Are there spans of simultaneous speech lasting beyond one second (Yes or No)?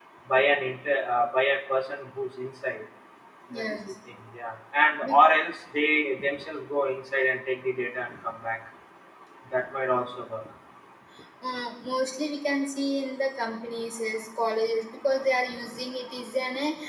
No